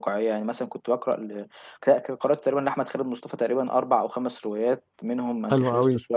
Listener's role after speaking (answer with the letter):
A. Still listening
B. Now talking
A